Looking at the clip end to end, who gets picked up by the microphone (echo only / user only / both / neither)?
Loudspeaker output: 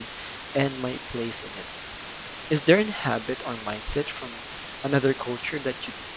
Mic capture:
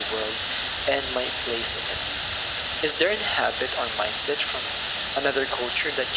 echo only